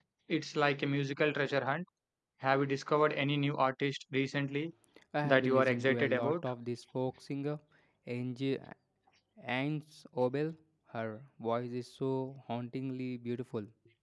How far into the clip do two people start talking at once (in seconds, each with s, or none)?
5.2 s